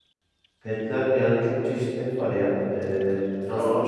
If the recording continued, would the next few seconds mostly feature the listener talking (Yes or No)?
Yes